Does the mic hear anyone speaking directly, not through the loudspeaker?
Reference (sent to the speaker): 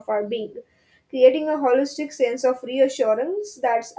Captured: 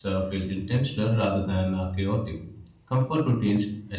Yes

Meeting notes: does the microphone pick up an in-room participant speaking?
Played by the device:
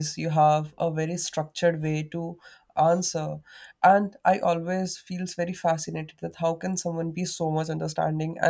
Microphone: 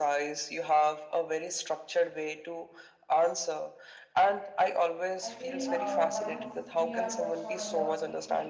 Yes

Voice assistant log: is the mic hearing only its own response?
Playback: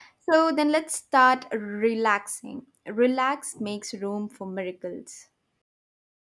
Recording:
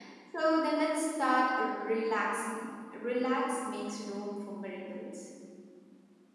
Yes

